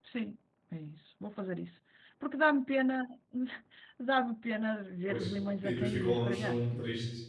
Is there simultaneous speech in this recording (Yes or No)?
Yes